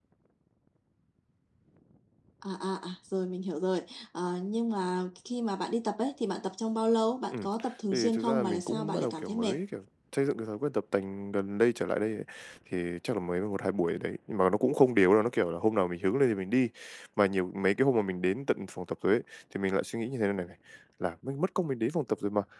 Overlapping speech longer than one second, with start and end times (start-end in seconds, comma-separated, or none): 7.9-9.5